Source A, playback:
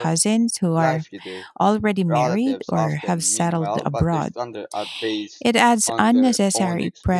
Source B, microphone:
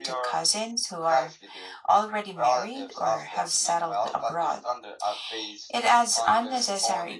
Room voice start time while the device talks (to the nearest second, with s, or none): none